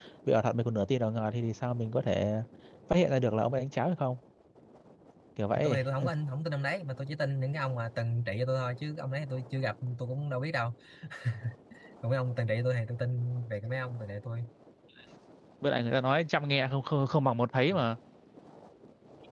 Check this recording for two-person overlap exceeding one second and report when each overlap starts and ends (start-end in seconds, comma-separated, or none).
none